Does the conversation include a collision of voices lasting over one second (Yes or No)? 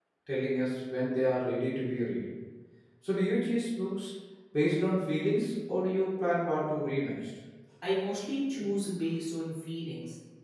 No